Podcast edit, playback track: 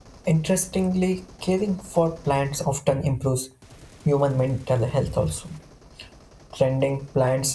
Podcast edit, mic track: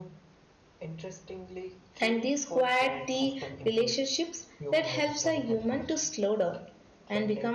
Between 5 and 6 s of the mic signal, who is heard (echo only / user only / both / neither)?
both